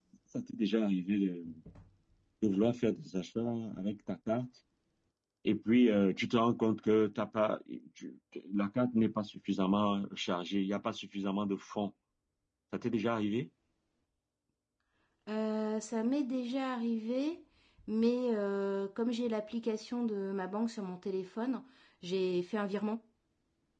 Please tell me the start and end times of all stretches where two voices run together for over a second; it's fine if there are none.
none

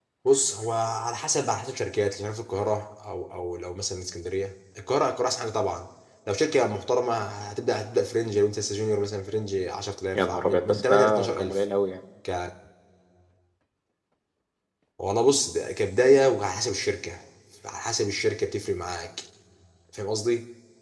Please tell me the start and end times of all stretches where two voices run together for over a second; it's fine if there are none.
10.2-11.6

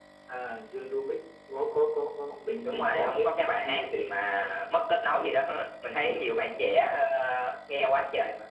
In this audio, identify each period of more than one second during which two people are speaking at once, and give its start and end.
2.6-4.2

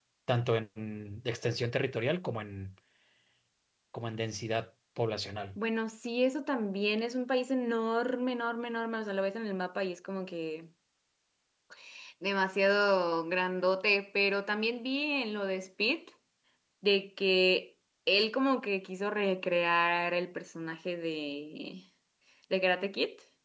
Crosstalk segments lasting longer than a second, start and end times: none

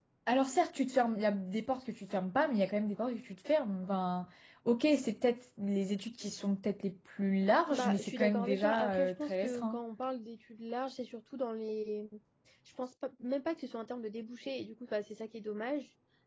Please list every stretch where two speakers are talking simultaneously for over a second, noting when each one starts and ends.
7.7-9.8

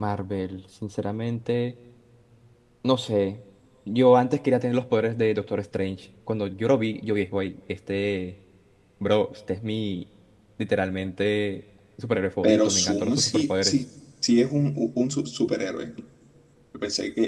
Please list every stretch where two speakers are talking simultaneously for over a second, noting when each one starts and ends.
12.4-13.8

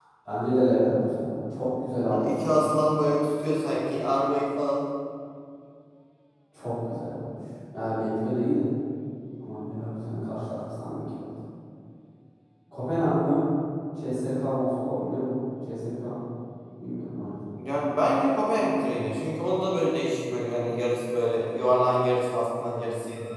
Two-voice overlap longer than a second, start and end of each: none

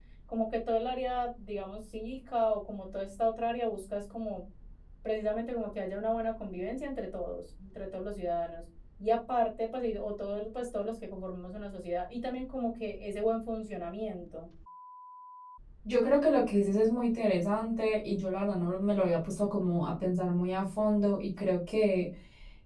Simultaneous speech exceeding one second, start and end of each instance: none

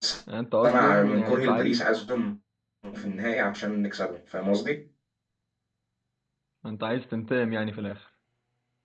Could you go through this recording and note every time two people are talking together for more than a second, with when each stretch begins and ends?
0.6-1.9

